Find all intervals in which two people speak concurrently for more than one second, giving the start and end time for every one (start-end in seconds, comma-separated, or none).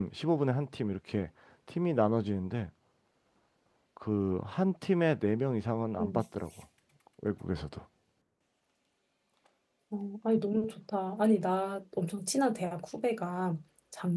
none